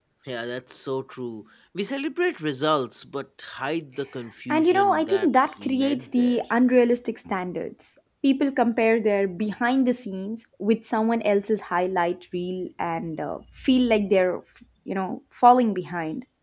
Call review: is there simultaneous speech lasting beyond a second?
Yes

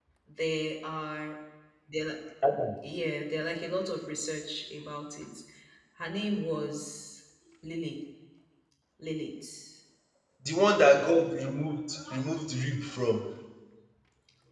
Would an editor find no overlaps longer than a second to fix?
Yes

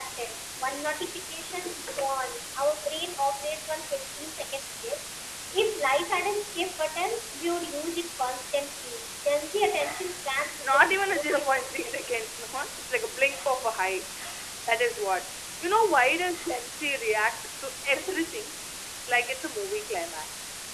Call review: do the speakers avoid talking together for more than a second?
No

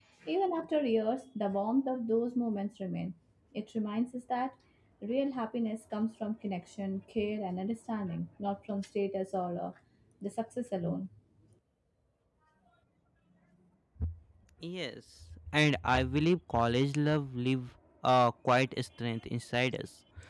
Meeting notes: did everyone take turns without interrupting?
Yes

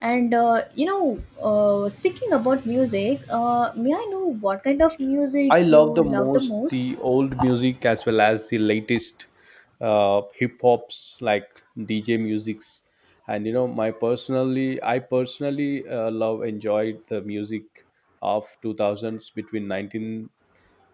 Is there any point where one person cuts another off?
Yes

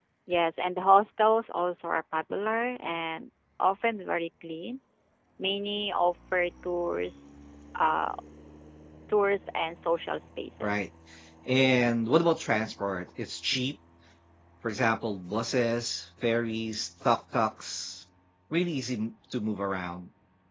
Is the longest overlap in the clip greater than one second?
No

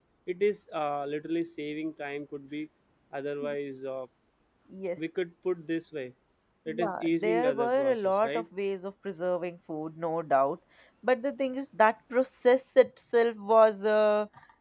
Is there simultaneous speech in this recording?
Yes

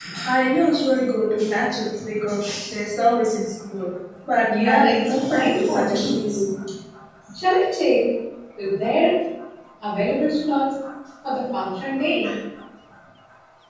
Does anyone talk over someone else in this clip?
Yes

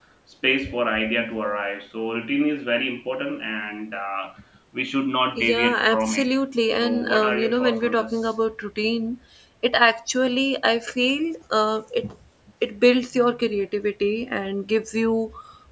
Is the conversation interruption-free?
No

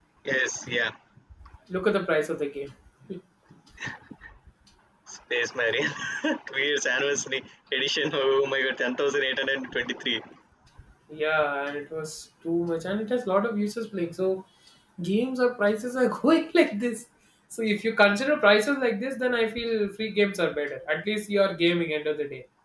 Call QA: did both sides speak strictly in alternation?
Yes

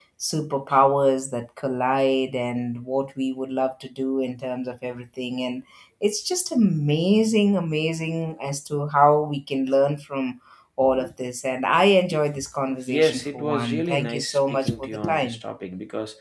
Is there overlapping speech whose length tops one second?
Yes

